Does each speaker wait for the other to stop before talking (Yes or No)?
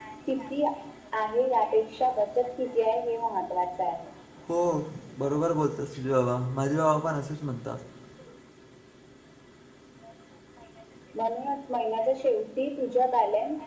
Yes